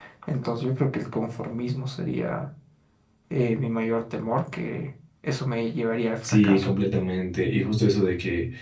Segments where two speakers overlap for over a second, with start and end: none

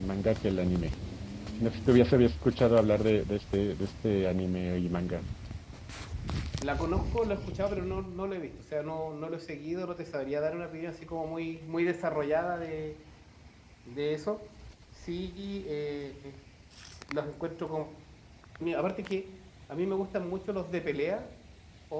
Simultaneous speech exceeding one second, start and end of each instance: none

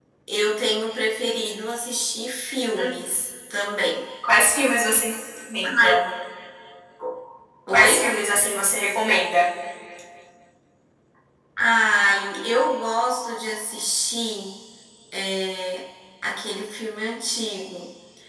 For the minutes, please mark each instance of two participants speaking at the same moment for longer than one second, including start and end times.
none

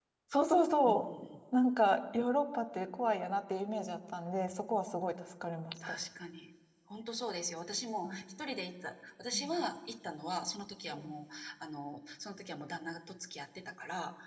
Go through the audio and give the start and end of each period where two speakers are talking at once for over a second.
none

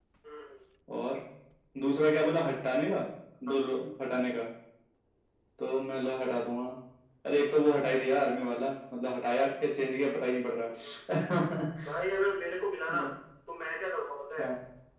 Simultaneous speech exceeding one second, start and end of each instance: none

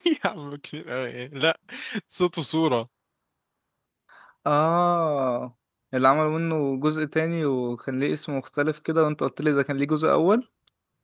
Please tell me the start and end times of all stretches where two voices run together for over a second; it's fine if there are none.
none

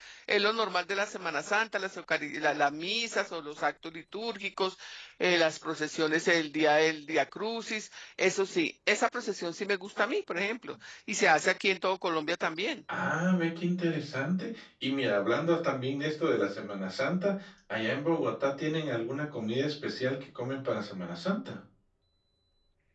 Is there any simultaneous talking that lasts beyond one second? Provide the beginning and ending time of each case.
none

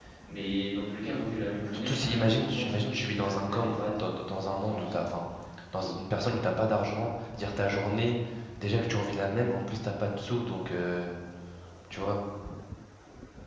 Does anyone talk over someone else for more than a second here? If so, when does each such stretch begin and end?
1.8-3.8

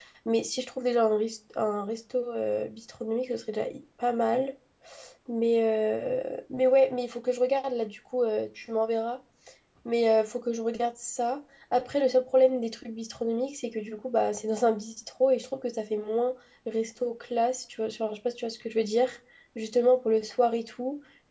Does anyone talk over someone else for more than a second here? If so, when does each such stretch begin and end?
none

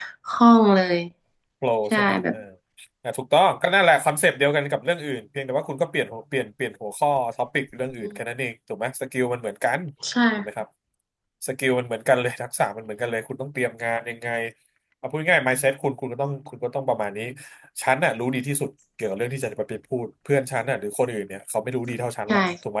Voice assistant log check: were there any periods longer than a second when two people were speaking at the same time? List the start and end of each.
none

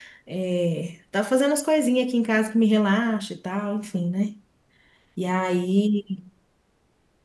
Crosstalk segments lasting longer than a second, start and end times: none

